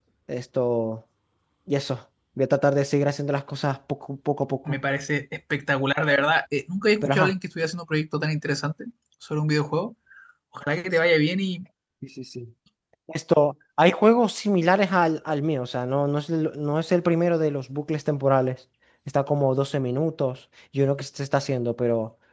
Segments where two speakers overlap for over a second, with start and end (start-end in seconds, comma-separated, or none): none